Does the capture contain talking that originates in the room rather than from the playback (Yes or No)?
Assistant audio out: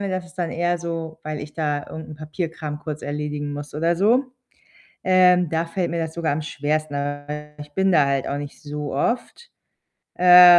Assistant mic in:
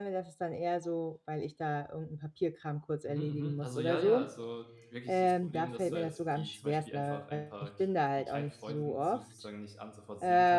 Yes